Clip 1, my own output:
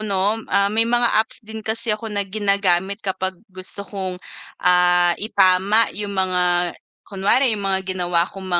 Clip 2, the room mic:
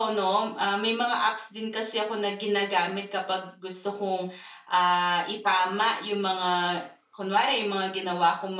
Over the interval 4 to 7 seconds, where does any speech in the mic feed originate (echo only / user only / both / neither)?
echo only